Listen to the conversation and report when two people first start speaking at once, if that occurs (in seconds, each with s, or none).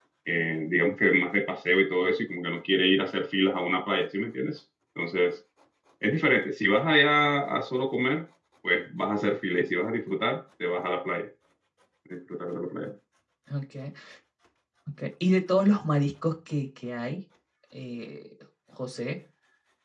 none